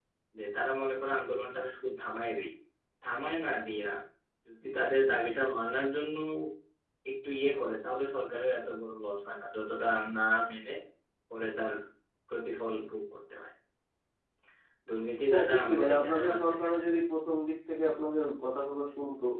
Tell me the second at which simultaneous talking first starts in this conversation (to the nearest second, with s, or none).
15 s